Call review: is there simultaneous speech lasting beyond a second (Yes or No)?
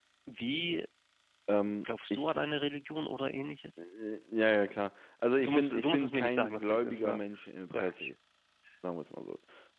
Yes